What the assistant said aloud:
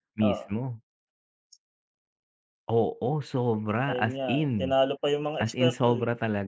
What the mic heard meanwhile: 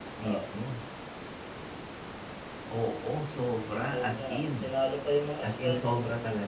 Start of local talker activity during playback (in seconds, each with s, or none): none